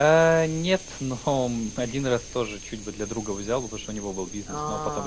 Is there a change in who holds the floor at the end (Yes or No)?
No